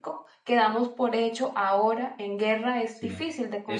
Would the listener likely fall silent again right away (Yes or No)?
No